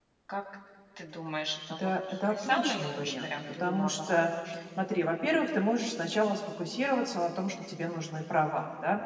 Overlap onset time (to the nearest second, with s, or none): 2 s